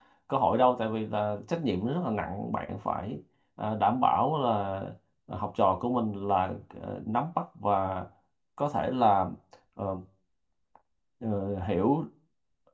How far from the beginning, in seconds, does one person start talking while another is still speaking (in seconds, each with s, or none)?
none